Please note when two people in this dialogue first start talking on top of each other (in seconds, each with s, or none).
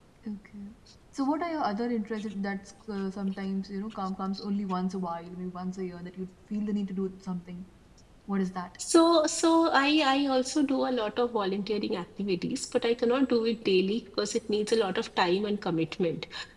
none